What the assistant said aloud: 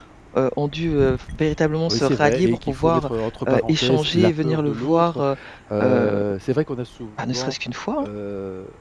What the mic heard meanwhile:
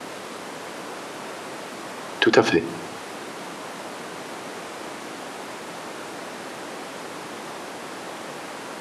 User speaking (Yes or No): Yes